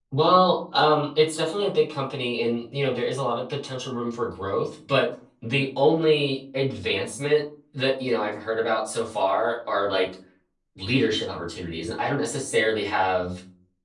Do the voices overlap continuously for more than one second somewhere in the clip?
No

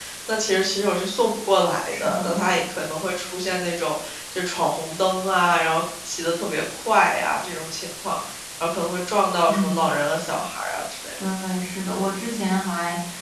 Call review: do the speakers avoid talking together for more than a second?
Yes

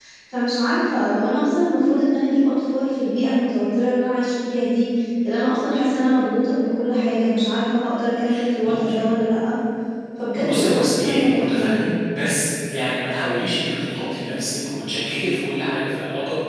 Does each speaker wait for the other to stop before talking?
No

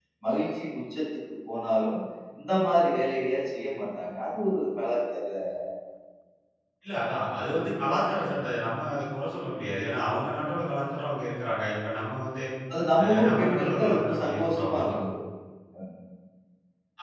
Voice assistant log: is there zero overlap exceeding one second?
No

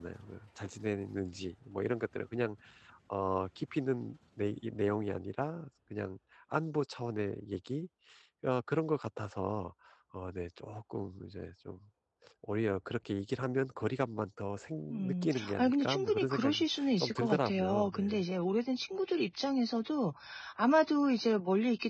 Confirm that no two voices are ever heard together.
No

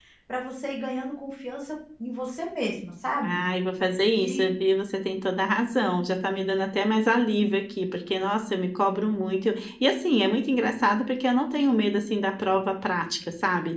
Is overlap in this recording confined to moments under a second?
Yes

